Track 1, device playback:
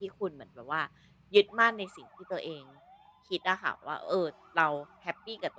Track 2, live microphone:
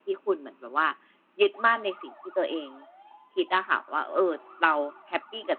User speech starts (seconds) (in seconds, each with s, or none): none